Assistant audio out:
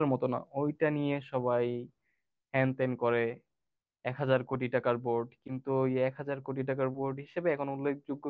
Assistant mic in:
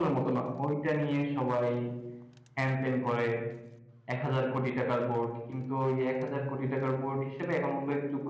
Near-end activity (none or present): none